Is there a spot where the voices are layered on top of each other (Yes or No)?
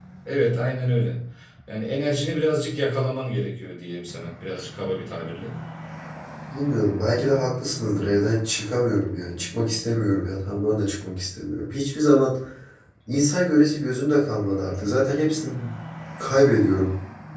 No